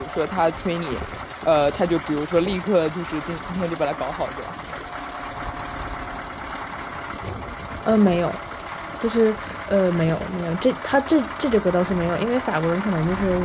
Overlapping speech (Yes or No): No